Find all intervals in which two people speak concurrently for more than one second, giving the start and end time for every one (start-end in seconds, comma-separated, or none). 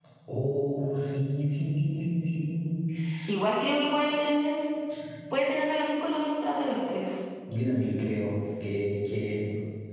none